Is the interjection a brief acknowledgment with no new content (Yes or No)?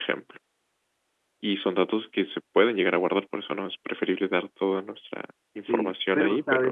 No